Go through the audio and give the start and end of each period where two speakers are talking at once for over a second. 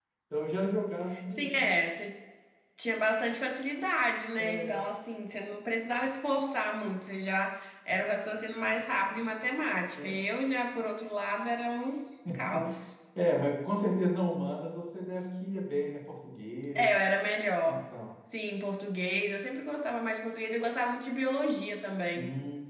none

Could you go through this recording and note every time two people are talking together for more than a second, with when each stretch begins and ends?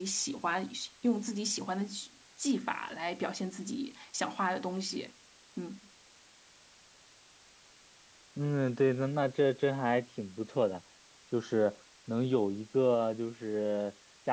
none

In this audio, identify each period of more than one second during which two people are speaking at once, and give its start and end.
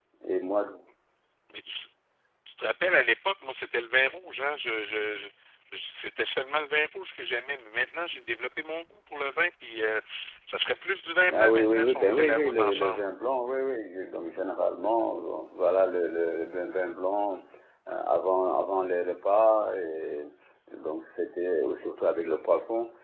11.3-13.0

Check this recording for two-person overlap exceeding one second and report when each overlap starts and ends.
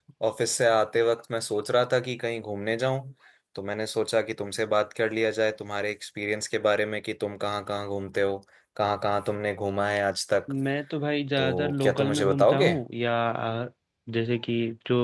11.4-12.7

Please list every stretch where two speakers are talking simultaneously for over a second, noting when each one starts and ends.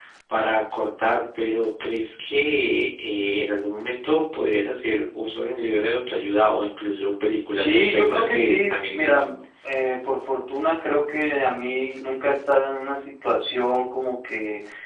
7.5-9.2

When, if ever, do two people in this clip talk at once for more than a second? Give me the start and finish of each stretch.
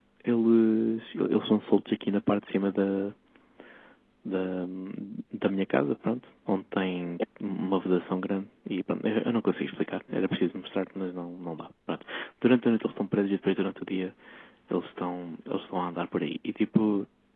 none

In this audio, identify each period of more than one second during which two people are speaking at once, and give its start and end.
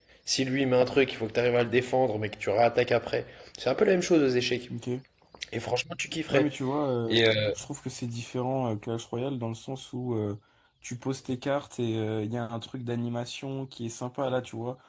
none

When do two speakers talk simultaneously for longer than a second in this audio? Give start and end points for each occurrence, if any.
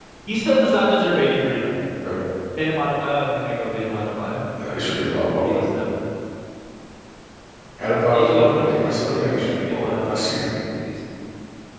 8.1-10.4

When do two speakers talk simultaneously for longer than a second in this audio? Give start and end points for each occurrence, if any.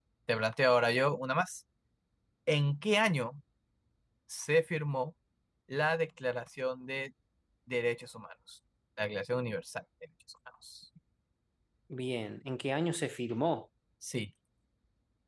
none

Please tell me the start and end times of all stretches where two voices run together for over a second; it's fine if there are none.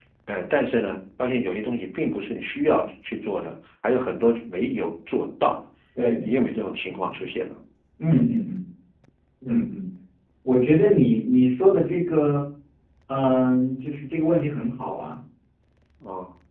none

